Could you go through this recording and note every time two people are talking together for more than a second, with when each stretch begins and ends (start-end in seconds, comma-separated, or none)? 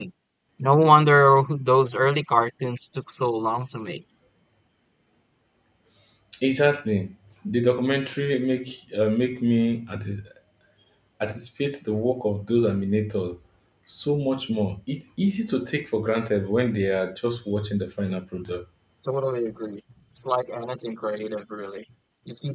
none